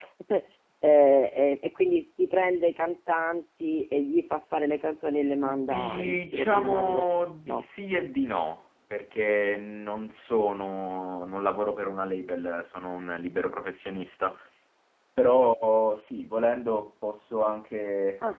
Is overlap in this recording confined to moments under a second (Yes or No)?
No